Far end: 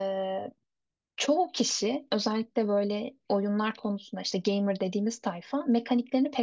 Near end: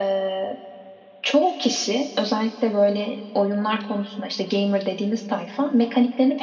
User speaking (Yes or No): No